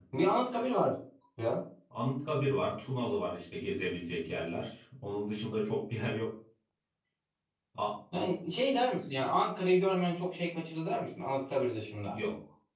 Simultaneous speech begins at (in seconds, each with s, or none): none